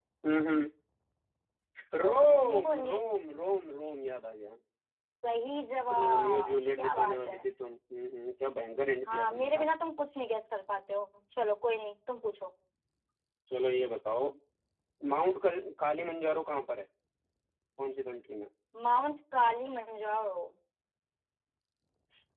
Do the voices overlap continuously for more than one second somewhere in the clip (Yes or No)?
Yes